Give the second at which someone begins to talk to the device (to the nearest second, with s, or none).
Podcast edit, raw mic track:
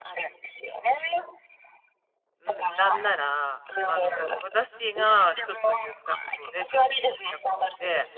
2 s